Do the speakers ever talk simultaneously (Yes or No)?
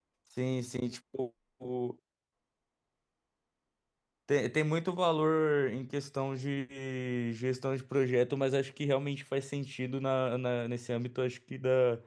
No